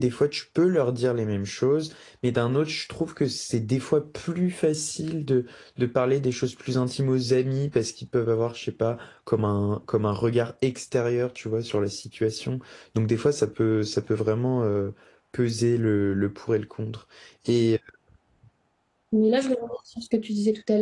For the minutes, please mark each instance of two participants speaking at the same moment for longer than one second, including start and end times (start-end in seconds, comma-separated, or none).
none